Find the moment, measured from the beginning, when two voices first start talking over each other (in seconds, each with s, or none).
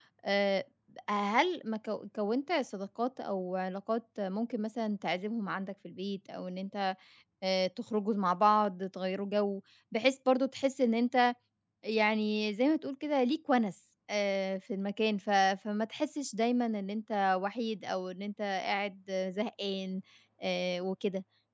none